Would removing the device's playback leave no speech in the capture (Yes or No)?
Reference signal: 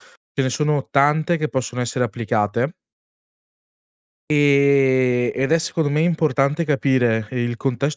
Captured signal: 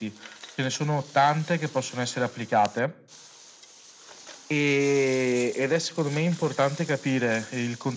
Yes